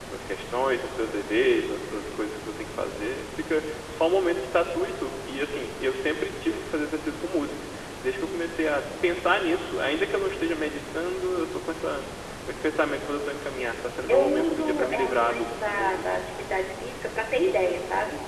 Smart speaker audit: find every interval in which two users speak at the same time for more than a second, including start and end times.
14.1-16.2

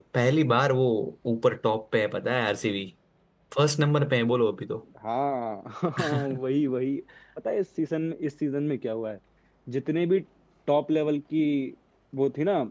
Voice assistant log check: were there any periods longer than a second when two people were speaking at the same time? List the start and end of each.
none

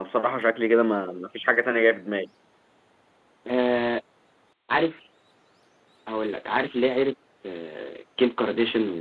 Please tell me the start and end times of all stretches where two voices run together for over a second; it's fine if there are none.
none

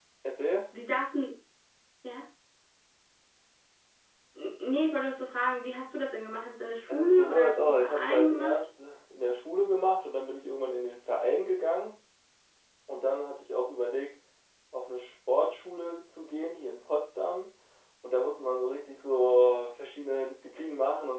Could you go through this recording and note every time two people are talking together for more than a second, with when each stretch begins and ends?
6.9-8.6

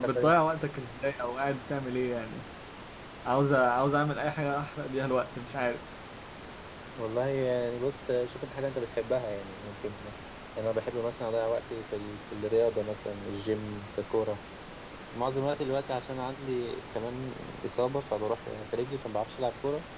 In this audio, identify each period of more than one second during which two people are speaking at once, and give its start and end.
none

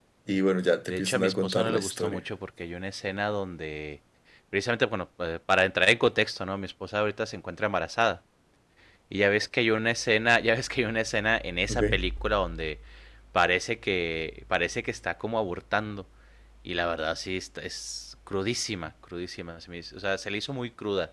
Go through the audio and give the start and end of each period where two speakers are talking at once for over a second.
0.9-2.2

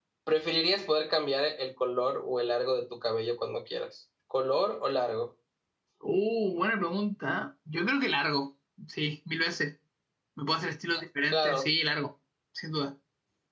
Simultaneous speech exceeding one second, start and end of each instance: none

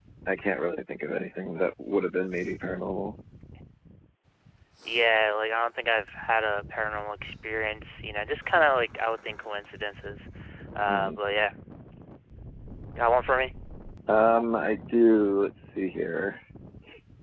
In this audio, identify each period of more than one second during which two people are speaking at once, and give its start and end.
none

